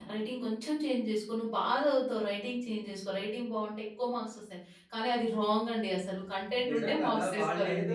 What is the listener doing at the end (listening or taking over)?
taking over